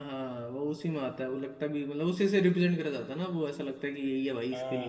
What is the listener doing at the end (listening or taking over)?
taking over